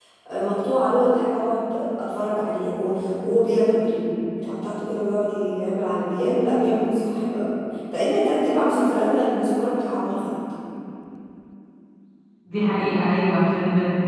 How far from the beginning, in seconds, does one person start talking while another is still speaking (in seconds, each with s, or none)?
none